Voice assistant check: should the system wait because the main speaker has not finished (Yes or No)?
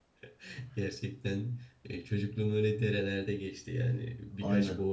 Yes